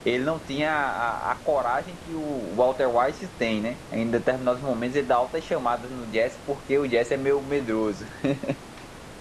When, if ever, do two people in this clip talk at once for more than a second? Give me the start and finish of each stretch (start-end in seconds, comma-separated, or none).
none